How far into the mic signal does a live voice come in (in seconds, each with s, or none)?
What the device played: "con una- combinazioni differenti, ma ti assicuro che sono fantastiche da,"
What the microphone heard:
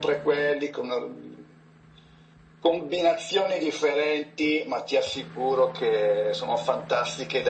none